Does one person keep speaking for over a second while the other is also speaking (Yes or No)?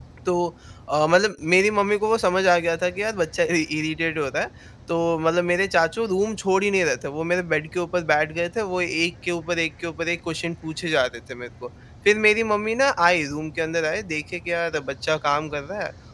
No